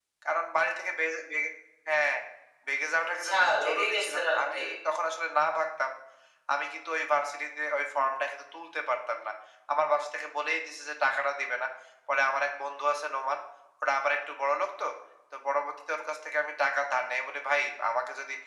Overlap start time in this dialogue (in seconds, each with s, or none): 3.2 s